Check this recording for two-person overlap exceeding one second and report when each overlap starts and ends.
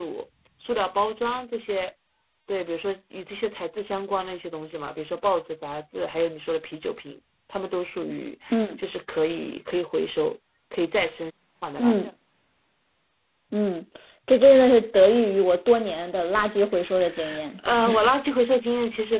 none

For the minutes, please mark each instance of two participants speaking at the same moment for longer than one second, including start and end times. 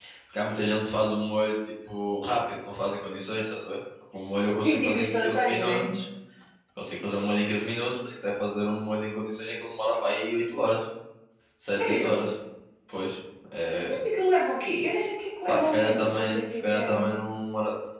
4.6-5.9, 15.5-17.1

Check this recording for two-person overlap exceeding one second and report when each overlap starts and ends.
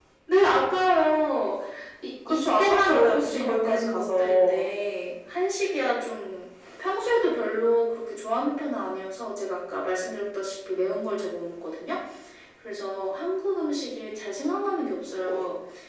2.3-4.7

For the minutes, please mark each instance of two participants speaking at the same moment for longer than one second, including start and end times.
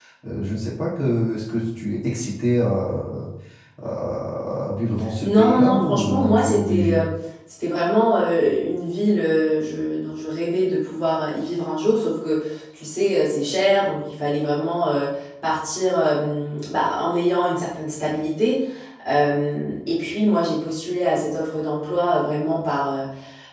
5.2-7.0

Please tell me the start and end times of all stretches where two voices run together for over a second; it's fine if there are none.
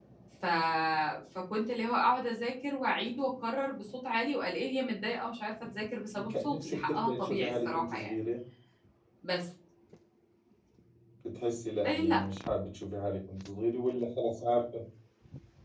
6.3-8.1

